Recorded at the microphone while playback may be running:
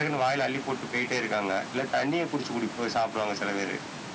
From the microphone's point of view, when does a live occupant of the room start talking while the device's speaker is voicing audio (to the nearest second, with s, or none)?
none